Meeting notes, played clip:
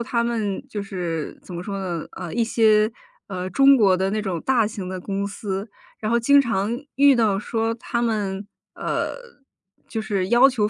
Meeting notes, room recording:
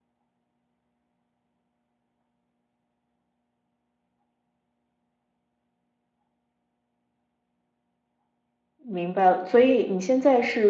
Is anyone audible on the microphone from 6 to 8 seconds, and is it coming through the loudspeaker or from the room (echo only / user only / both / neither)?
neither